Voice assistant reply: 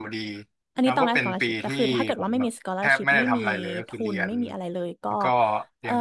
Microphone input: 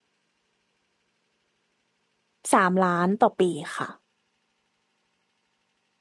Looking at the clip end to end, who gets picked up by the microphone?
user only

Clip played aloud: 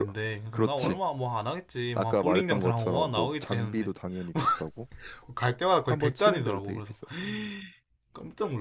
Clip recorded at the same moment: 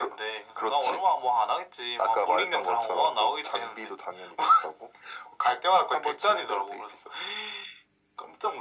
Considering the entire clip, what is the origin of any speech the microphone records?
echo only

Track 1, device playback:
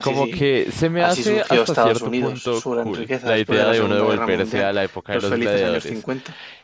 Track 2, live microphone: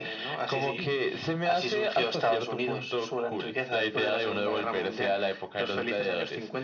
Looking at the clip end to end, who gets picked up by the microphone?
echo only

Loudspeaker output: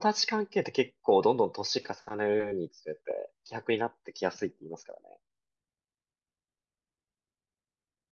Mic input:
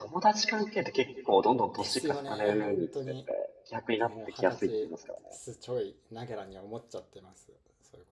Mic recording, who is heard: both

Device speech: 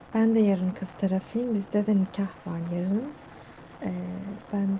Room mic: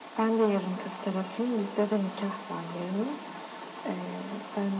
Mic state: echo only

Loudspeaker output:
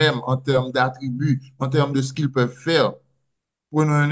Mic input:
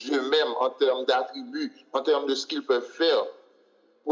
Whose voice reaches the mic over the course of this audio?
echo only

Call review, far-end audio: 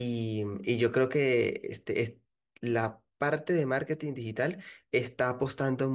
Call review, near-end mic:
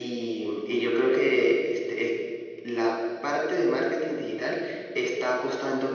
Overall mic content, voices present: echo only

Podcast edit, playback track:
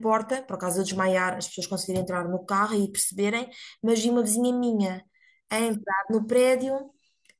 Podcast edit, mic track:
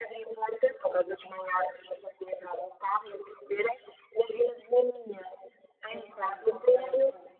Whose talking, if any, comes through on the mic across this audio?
both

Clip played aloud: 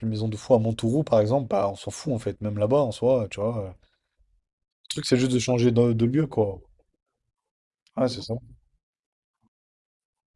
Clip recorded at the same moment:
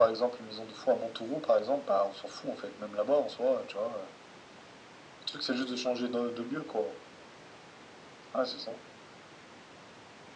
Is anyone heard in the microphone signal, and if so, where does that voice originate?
echo only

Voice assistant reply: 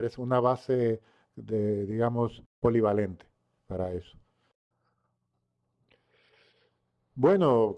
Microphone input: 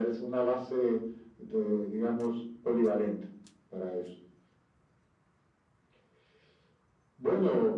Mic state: echo only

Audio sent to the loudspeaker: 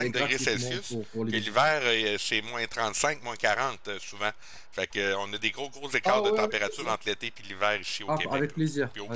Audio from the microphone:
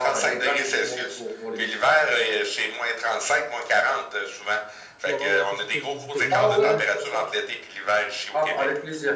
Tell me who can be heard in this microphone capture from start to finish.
both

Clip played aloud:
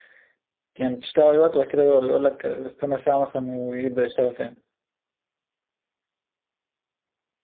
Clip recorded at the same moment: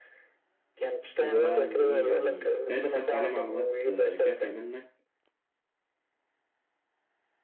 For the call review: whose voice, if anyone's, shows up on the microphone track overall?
both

